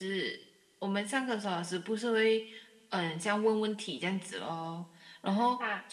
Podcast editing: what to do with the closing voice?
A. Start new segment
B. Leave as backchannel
B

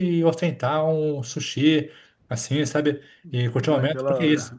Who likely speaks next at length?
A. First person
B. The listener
A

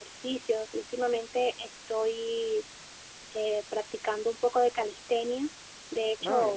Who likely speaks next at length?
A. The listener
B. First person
B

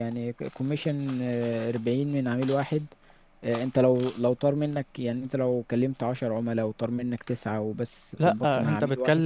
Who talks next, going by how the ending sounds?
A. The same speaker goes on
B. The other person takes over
B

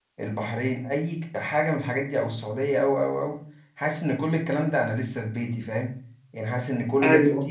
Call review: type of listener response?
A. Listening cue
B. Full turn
A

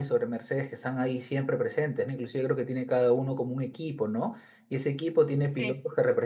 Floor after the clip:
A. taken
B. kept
B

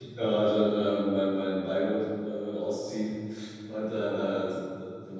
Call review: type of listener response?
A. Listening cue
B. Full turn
A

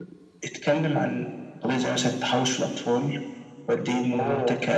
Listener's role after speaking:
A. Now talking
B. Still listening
B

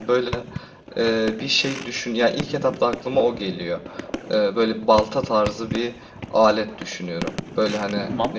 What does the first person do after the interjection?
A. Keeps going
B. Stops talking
A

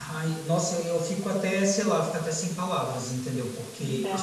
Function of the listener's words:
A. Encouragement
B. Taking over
B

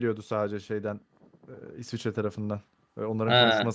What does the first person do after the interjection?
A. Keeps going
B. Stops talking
A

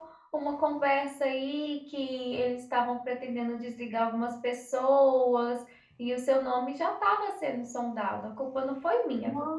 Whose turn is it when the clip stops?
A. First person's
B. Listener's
B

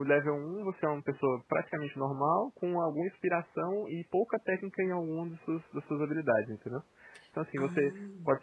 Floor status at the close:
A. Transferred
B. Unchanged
B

